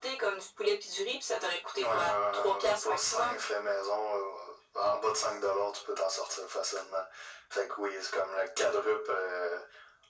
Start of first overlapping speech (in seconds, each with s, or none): 1.8 s